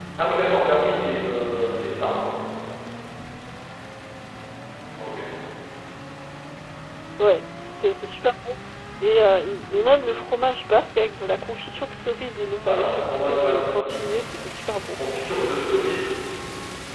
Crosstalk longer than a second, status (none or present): present